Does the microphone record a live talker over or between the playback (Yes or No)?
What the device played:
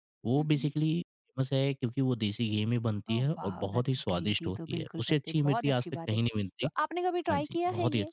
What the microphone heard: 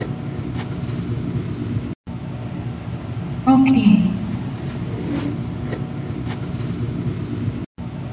Yes